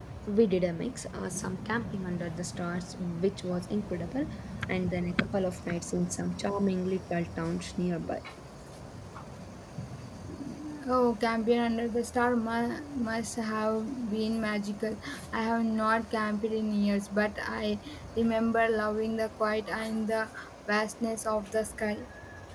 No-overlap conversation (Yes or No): Yes